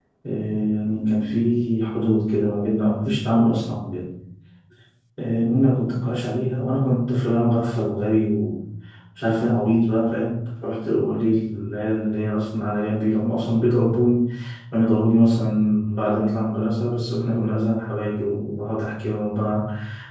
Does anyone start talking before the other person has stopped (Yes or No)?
No